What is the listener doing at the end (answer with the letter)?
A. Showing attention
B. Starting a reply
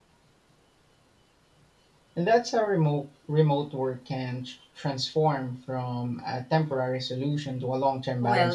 B